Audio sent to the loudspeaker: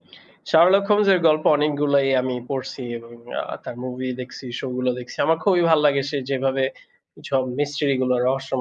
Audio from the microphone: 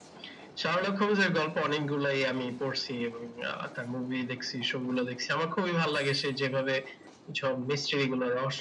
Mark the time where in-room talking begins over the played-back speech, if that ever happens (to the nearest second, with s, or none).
none